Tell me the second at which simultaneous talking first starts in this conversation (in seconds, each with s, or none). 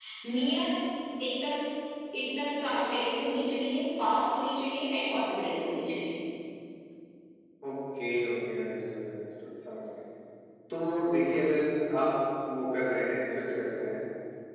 none